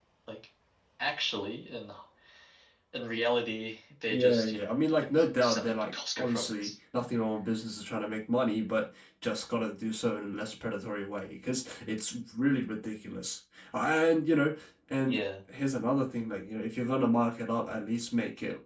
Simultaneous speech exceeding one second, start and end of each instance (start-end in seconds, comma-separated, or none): 4.1-6.7